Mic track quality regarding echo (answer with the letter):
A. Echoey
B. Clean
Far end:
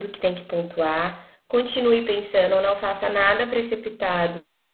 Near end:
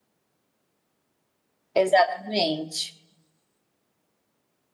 B